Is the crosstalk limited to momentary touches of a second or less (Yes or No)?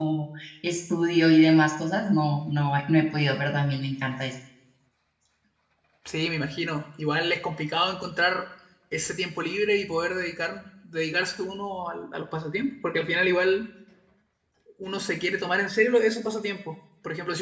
Yes